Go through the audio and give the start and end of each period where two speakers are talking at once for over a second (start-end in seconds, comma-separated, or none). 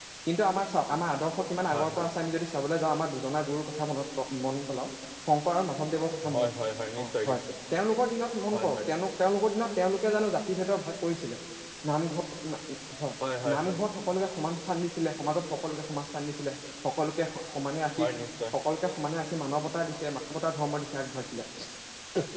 none